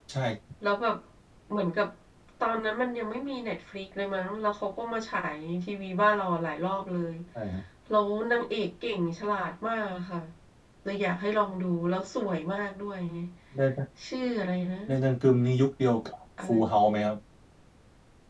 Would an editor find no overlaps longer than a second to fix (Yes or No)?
Yes